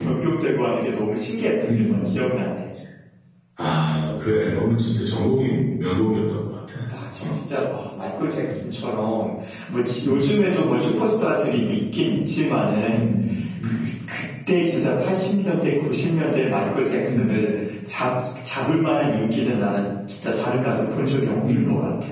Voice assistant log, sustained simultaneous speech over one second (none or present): none